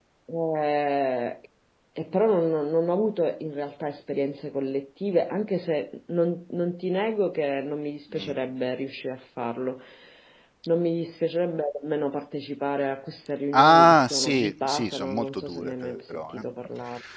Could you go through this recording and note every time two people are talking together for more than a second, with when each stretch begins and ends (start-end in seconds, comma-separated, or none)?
13.5-16.4